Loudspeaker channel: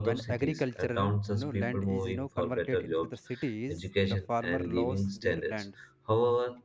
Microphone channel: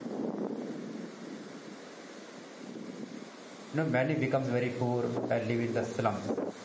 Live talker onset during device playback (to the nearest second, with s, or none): 4 s